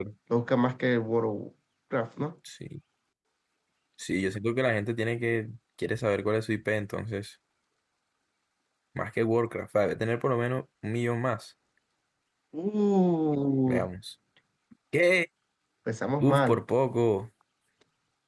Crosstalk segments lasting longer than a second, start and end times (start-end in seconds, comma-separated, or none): none